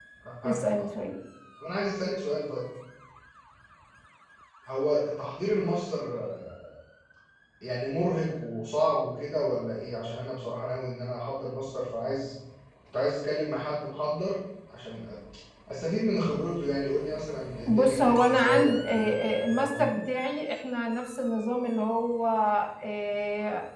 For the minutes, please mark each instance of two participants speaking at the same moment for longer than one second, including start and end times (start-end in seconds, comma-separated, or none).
17.7-20.0